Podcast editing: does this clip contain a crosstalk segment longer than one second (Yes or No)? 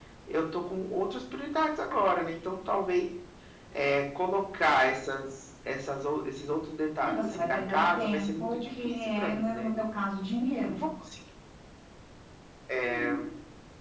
Yes